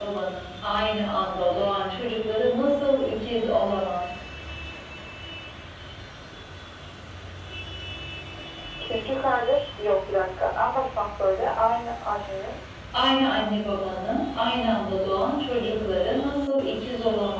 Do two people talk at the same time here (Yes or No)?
No